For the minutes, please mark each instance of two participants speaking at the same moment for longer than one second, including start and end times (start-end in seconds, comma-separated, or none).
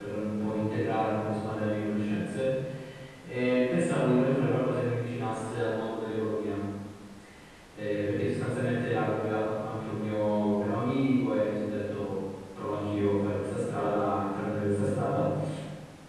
none